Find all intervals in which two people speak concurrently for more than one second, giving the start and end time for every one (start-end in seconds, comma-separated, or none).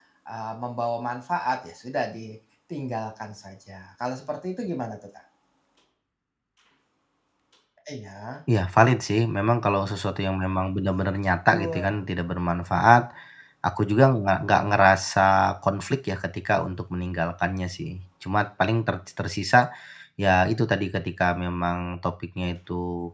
none